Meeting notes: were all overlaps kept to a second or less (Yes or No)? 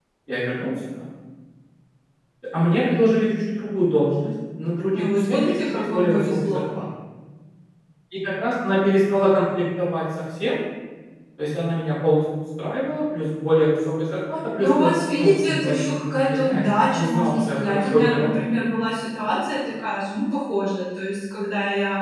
No